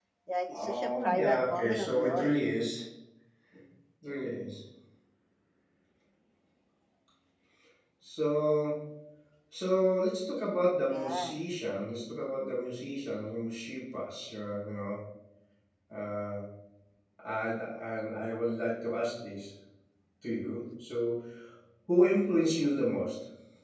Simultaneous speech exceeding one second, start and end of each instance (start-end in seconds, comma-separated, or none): 0.5-2.4